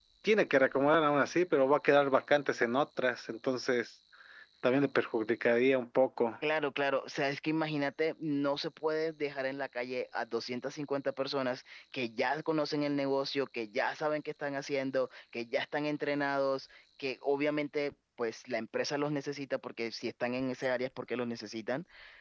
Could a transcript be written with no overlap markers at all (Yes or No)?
Yes